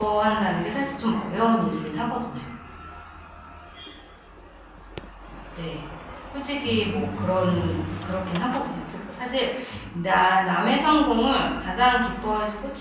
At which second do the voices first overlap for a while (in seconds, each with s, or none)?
6.6 s